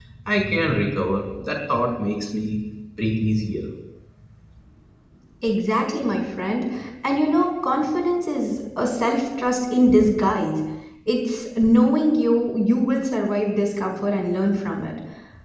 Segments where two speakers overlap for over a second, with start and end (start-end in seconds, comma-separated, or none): none